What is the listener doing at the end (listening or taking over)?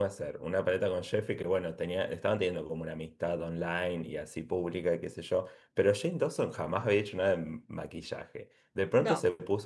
listening